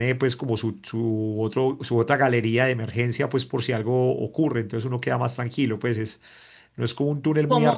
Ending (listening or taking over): listening